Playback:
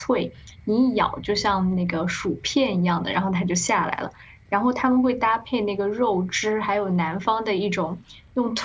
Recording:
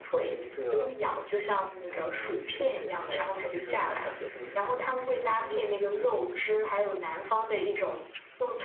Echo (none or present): present